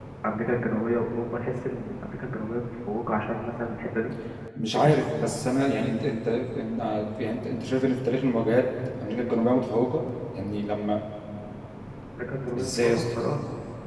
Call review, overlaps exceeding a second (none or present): none